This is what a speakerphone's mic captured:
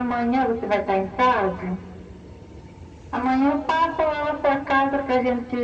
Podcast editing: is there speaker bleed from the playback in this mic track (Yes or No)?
Yes